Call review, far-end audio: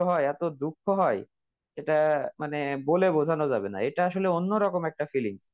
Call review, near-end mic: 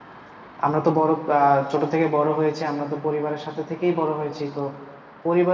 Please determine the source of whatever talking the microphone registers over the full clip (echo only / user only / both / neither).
user only